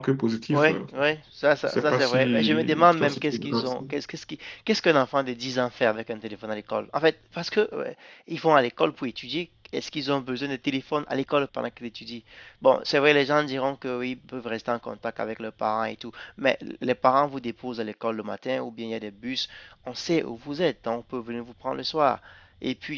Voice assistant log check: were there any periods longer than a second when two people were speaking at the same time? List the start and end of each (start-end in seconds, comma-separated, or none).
1.6-3.8